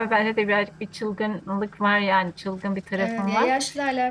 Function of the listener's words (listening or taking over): taking over